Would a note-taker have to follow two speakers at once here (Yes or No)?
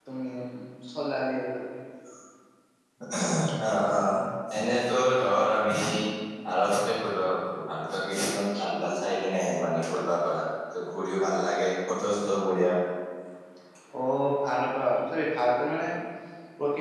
No